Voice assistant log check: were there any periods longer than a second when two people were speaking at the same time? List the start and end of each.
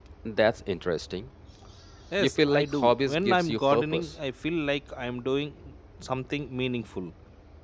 2.2-4.1

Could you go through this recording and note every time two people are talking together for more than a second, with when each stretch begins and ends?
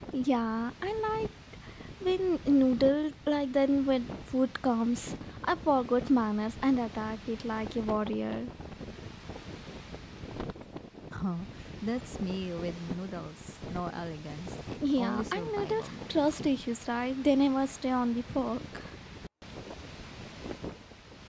15.0-16.2

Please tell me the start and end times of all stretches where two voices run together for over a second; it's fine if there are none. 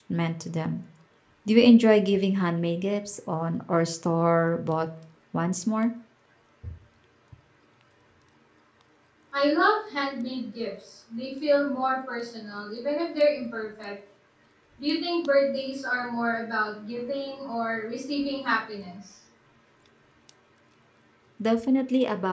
none

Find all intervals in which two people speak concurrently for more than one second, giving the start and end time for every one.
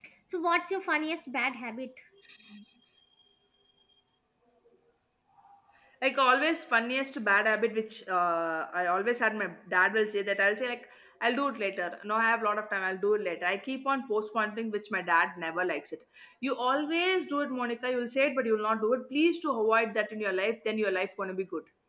none

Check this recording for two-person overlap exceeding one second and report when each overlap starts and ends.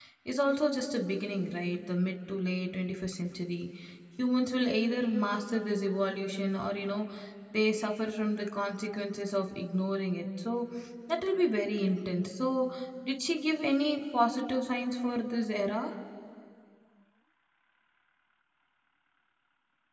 none

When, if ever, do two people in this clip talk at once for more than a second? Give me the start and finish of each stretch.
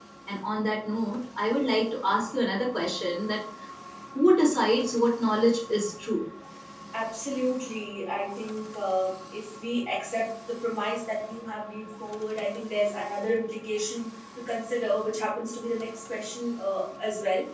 none

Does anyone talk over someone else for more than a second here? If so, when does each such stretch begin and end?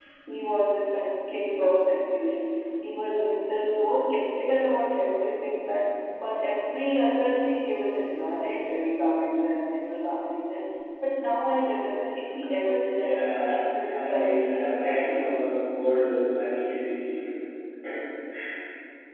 12.9-14.7

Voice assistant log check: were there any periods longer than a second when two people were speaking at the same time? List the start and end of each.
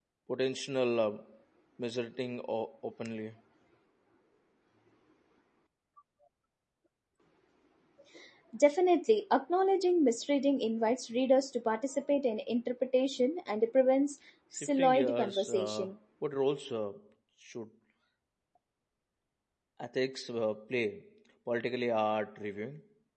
14.5-15.9

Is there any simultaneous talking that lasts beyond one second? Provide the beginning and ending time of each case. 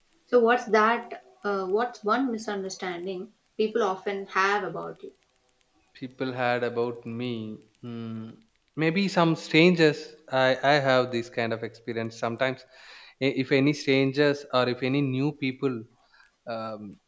none

